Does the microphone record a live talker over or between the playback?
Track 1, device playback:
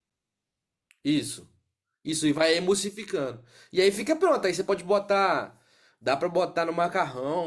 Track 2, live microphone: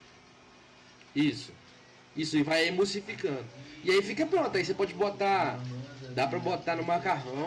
Yes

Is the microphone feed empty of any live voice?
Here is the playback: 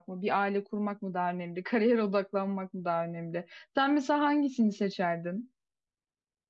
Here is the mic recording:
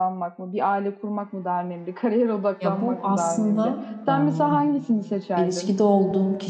No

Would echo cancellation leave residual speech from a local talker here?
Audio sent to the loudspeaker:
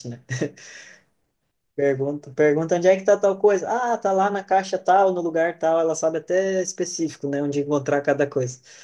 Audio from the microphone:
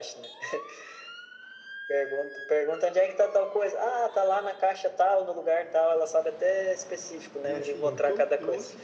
Yes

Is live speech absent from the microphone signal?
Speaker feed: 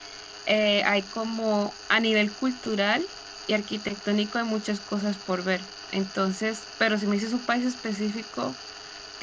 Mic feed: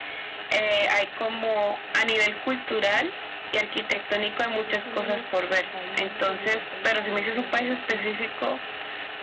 No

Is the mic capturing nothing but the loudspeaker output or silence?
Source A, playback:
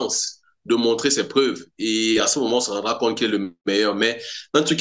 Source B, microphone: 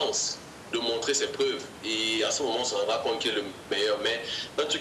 Yes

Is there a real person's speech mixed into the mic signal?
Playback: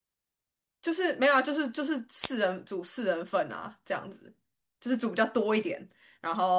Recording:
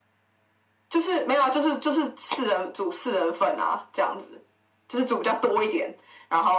No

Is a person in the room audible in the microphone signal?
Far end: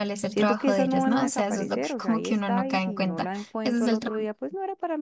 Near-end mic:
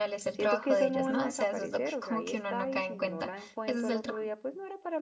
No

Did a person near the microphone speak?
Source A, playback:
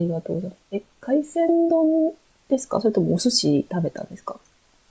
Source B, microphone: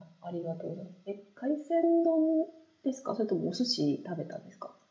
No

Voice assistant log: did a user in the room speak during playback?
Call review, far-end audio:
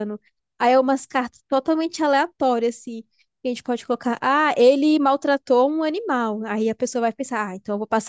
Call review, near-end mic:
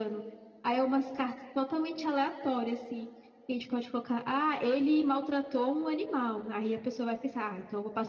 No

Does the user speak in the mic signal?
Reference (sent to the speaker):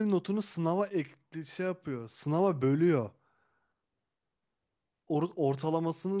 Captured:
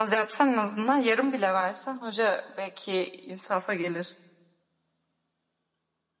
Yes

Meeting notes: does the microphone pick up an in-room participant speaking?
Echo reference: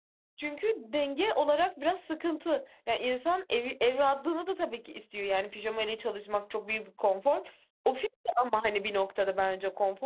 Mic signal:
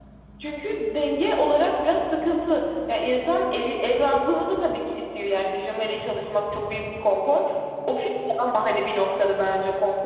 No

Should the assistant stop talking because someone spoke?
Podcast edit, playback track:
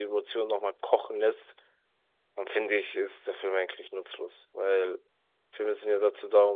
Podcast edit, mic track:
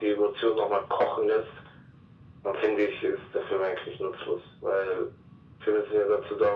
No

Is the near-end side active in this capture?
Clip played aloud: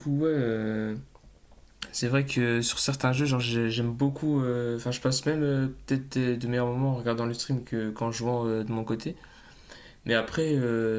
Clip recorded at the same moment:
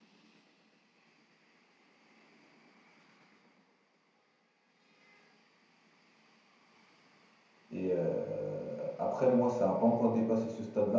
Yes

